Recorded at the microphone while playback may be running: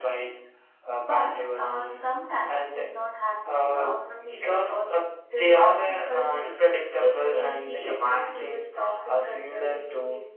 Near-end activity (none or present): none